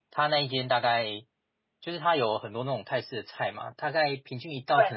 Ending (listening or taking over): listening